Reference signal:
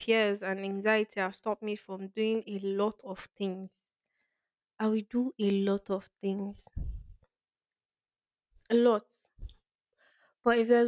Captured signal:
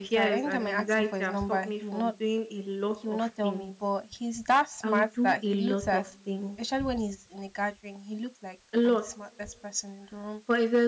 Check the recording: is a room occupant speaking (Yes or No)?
Yes